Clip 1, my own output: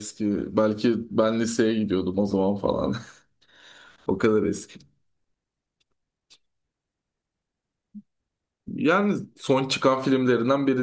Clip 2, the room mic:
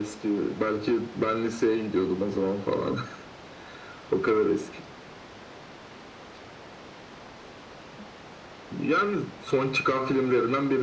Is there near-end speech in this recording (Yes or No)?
No